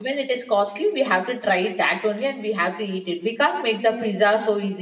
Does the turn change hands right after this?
No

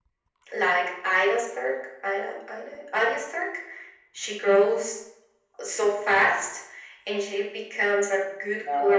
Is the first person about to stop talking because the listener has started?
No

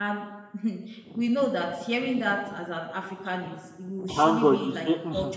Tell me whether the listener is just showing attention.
No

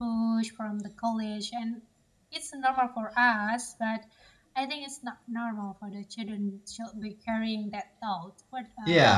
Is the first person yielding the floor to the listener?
Yes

